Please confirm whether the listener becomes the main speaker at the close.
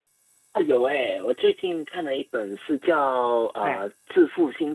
No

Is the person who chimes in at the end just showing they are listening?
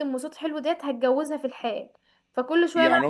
No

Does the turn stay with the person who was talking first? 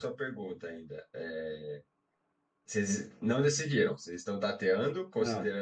Yes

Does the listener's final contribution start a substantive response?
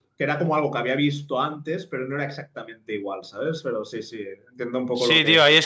Yes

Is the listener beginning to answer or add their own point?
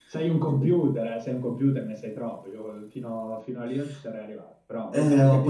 Yes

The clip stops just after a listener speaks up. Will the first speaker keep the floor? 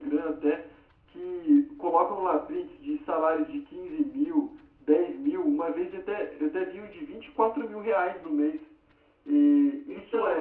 Yes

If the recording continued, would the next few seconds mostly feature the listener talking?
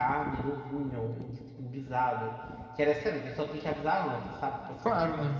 No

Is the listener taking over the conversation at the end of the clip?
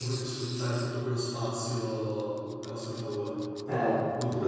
Yes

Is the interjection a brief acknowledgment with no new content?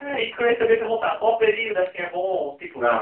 Yes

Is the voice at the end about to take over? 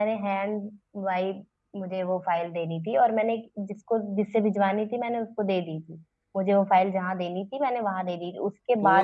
Yes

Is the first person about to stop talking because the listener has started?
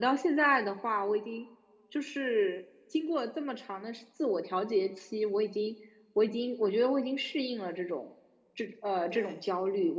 No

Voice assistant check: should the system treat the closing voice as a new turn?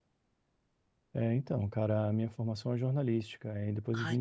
No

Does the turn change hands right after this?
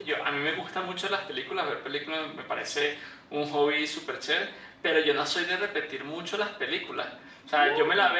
No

